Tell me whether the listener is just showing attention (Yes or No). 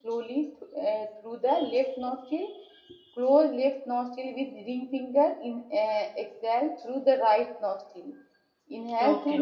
Yes